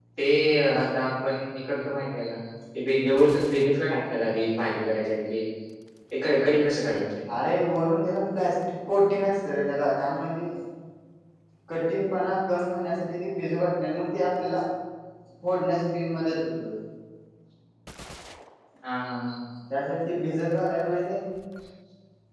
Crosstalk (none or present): none